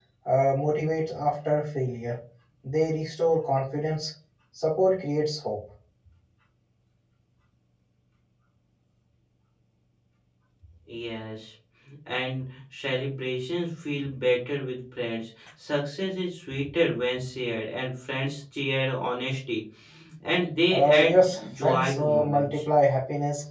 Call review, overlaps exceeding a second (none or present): present